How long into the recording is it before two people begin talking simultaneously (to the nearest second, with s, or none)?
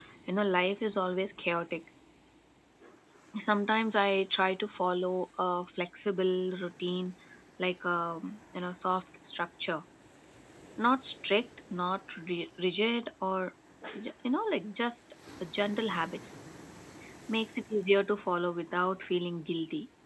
none